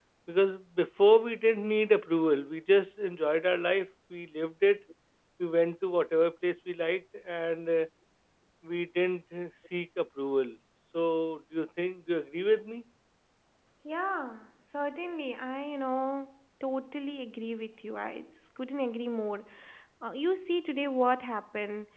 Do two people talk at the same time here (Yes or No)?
No